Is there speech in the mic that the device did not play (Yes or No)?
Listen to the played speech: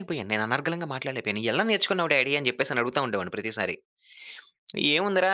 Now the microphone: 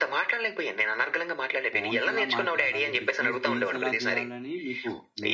Yes